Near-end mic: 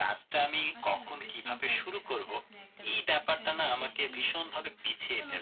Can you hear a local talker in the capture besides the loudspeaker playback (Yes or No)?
Yes